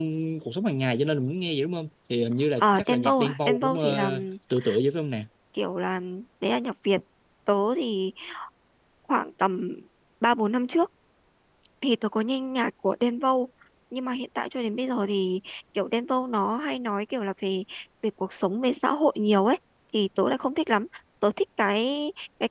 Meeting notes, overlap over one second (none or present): present